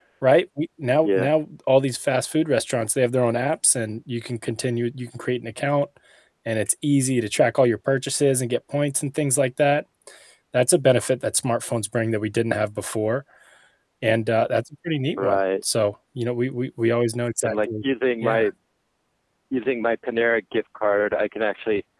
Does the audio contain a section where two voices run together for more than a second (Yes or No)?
No